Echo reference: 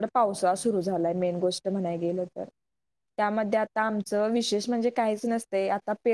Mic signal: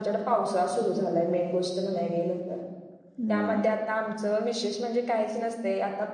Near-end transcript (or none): हम्म